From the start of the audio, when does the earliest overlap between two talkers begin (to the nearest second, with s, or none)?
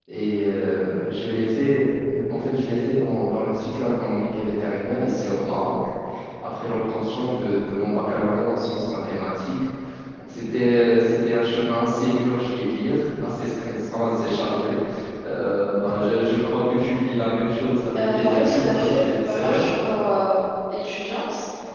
18 s